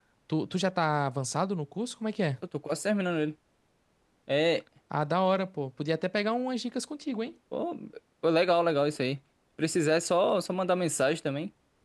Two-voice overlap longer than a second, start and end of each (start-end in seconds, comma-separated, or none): none